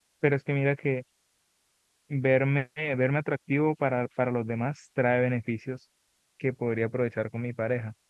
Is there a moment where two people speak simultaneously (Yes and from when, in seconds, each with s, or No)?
No